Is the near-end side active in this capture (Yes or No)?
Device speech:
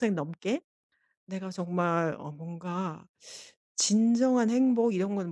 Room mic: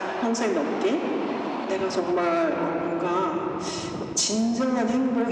No